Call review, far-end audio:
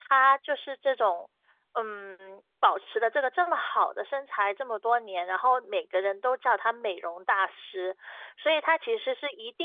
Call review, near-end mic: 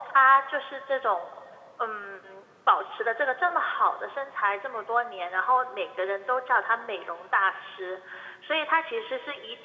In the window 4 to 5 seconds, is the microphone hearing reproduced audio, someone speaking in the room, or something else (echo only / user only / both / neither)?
echo only